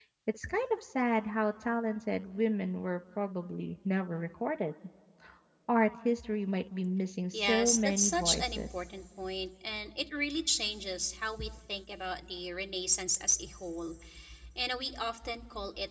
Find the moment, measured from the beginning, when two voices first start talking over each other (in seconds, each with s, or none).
7.3 s